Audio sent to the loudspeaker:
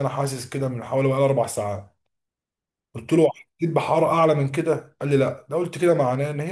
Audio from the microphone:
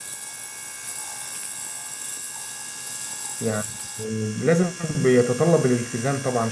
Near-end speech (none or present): present